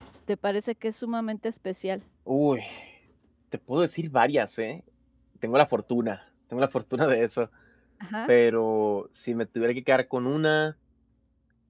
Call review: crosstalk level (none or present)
none